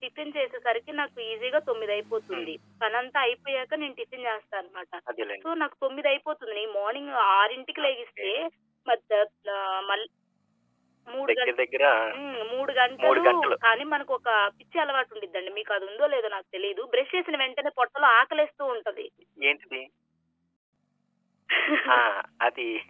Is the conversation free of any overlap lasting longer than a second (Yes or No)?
Yes